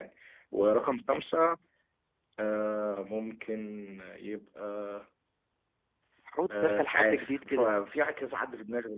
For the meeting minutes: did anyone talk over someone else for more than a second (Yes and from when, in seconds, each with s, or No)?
Yes, from 6.5 s